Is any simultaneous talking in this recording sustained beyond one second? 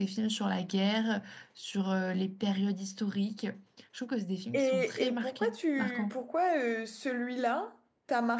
Yes, from 4.5 s

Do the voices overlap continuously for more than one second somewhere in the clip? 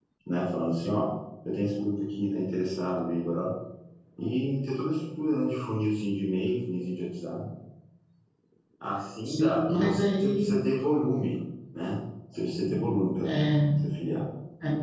Yes, from 9.2 s

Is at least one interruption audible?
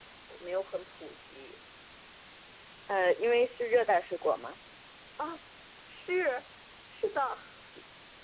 No

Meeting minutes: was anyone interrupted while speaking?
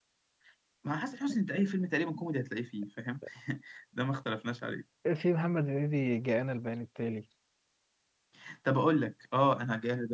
No

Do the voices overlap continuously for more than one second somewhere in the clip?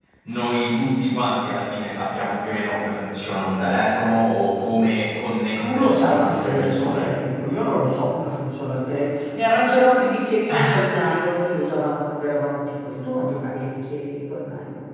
Yes, from 5.6 s

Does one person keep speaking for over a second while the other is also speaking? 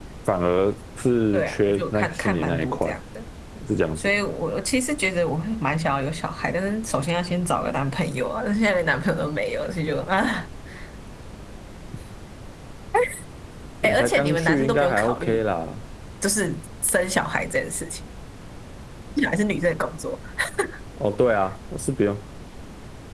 Yes, from 1.3 s

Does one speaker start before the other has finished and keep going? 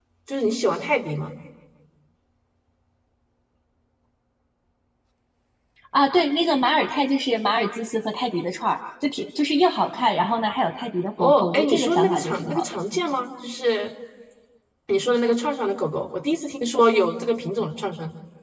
Yes, from 11.2 s

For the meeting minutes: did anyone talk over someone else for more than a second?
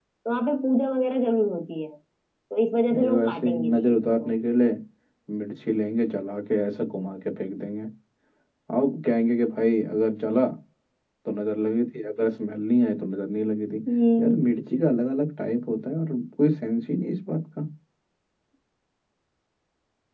Yes, from 2.9 s

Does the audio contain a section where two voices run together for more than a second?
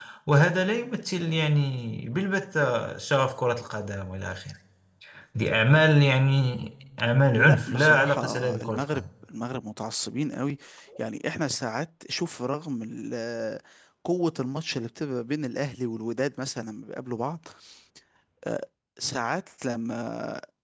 Yes, from 7.3 s

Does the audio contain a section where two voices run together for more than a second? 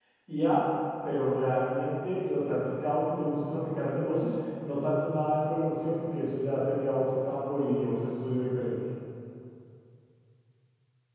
No

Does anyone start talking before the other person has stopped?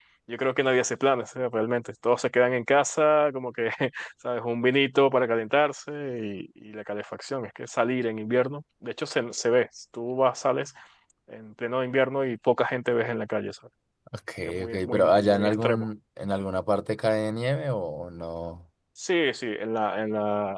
Yes, from 14.6 s

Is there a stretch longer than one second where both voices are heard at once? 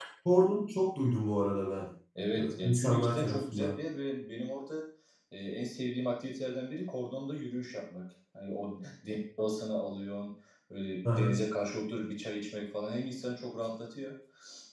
Yes, from 2.4 s

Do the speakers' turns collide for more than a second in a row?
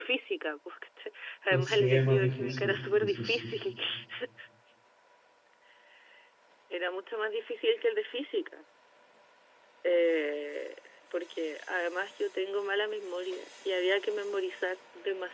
Yes, from 1.5 s

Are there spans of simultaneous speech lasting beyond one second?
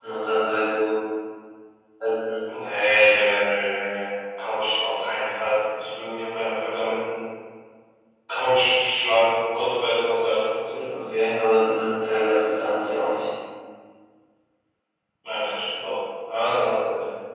No

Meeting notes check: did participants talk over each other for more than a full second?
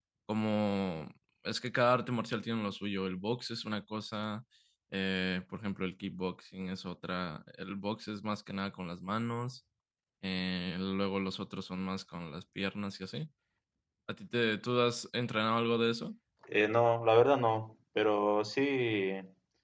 No

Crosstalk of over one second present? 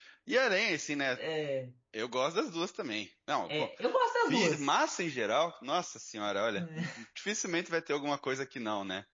No

